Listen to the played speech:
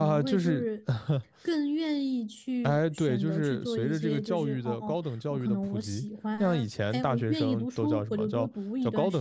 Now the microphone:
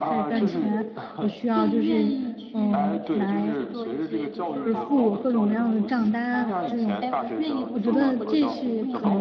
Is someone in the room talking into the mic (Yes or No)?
Yes